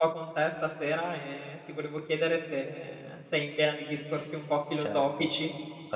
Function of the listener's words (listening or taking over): taking over